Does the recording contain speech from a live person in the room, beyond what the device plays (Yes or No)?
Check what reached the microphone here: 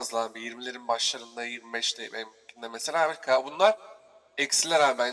No